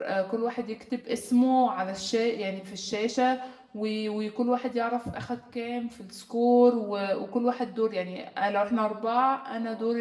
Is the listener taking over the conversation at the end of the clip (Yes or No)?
No